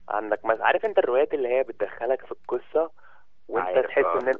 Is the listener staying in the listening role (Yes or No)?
Yes